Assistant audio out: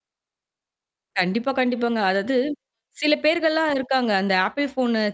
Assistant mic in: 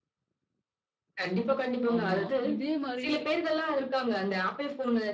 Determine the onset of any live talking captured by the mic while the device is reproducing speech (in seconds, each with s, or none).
1.9 s